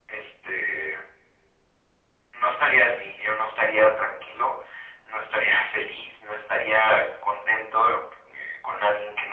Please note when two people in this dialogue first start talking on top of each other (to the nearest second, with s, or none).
none